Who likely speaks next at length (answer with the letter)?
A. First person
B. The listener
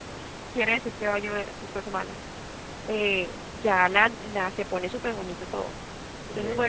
A